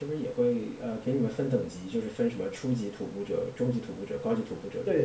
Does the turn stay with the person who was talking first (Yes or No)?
No